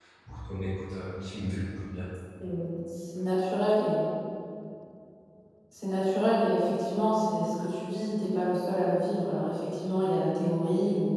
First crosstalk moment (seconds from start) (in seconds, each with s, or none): none